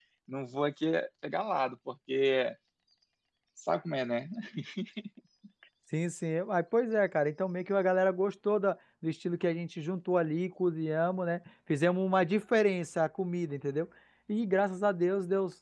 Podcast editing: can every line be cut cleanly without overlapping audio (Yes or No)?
Yes